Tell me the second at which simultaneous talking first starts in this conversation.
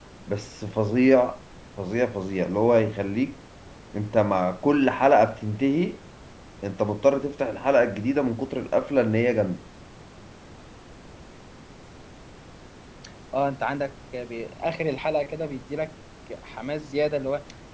none

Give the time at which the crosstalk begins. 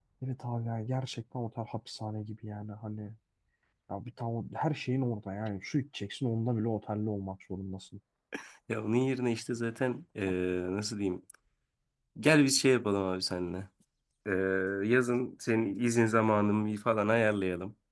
none

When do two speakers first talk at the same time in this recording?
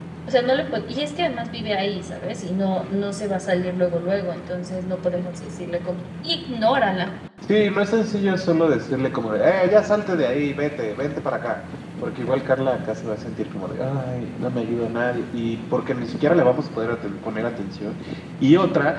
none

